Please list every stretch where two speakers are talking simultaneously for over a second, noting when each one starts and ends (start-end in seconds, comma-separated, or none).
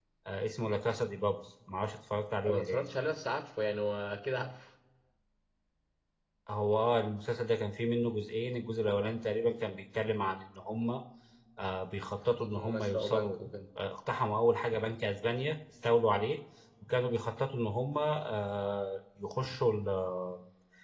12.2-13.4